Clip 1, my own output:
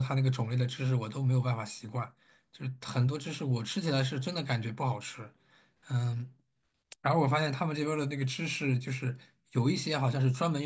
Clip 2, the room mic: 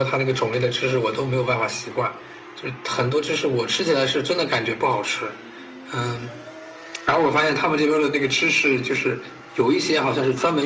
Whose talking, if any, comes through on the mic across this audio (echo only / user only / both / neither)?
echo only